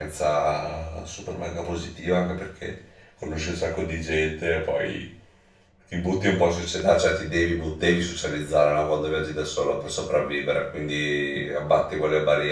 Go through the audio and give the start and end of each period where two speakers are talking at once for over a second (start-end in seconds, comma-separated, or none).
none